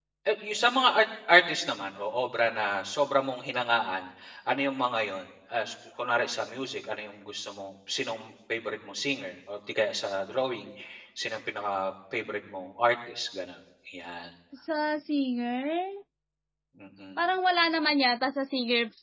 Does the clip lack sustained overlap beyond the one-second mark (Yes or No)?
Yes